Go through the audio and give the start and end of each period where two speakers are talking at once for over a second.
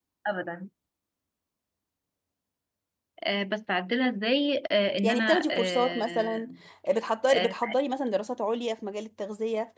5.0-6.5

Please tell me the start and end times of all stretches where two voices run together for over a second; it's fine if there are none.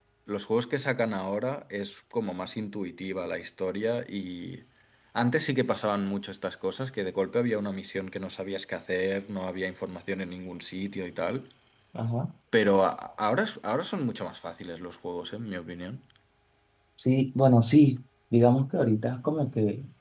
none

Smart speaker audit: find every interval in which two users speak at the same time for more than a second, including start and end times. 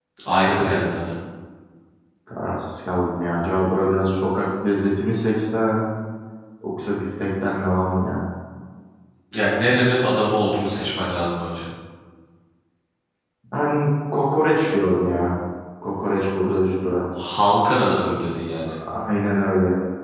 none

